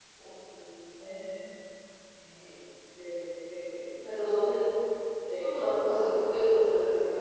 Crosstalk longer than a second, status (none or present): none